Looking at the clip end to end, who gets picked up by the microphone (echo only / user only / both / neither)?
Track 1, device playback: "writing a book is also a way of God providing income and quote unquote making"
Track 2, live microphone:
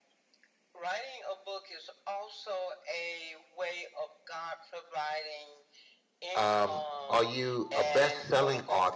both